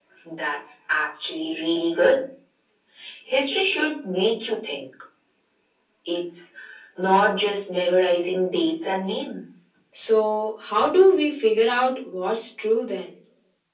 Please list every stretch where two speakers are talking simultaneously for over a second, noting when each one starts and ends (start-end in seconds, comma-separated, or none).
none